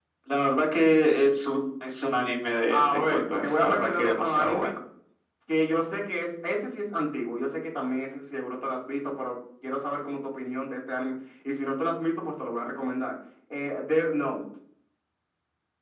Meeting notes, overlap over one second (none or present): present